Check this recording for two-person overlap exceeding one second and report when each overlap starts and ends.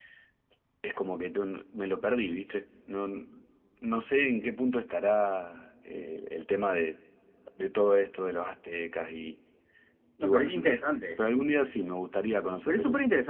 none

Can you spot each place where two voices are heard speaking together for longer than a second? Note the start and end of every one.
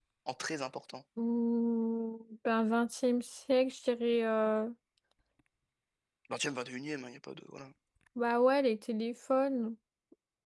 none

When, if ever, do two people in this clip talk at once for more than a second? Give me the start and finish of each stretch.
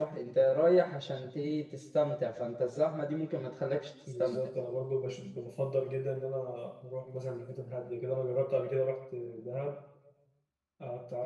none

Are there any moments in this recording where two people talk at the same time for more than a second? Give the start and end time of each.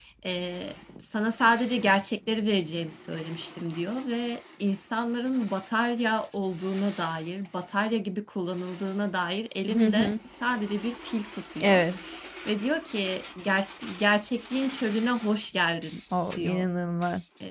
none

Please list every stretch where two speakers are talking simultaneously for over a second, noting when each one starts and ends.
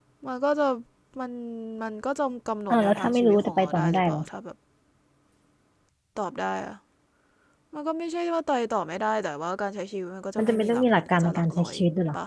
2.7-4.2, 10.4-11.7

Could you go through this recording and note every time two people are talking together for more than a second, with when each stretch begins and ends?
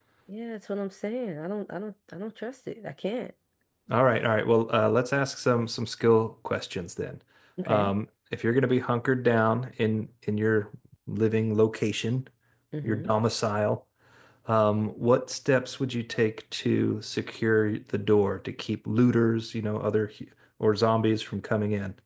none

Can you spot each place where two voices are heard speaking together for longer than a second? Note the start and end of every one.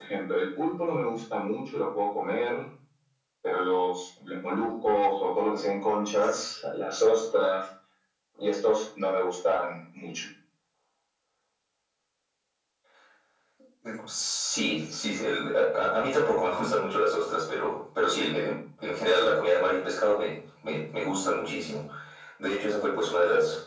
none

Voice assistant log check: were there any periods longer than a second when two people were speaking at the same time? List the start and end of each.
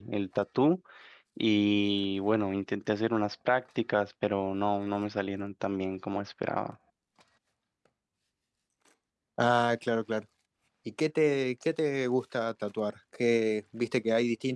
none

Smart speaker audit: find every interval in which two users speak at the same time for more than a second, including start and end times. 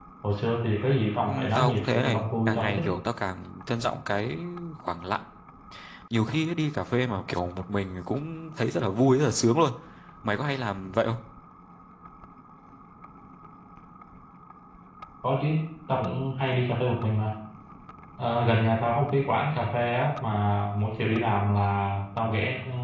1.3-2.8

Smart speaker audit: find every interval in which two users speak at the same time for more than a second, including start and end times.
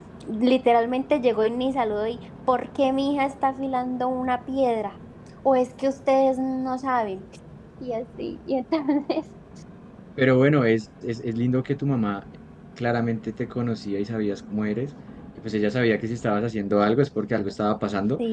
none

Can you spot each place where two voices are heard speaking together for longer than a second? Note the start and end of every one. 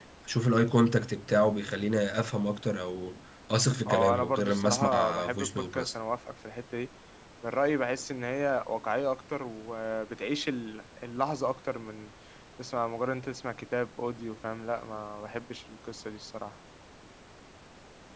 3.8-5.9

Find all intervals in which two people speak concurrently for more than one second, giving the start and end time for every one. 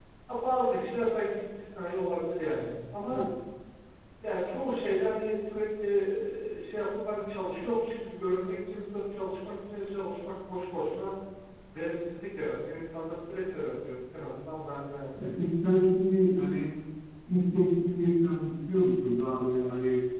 none

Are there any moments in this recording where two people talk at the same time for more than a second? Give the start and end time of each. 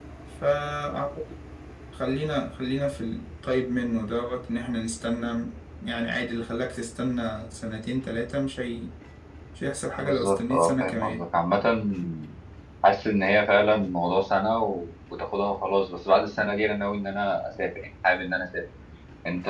9.9-11.2

